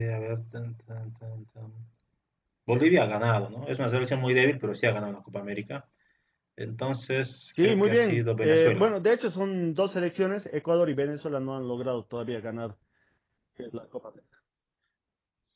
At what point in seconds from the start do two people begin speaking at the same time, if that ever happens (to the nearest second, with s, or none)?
8 s